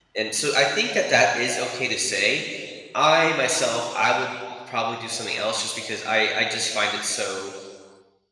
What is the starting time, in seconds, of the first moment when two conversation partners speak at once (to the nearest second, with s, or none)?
none